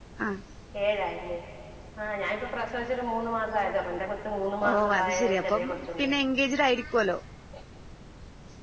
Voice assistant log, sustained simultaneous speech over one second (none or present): present